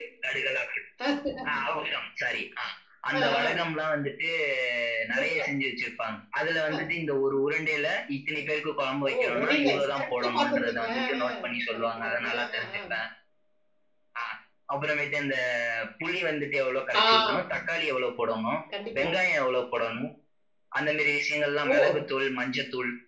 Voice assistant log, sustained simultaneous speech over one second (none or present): present